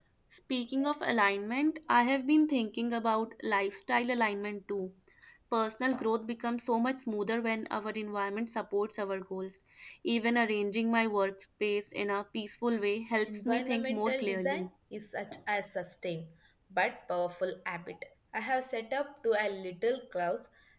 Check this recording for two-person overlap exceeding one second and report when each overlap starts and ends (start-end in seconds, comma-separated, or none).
13.3-14.7